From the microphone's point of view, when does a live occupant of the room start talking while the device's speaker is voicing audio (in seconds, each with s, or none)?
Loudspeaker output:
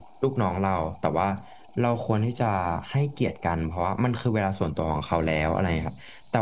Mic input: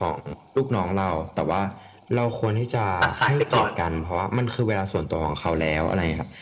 3.0 s